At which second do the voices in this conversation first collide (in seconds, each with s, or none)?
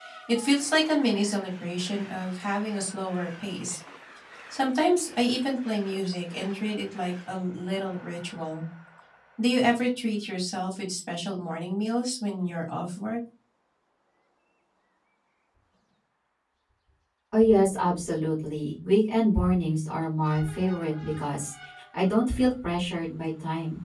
none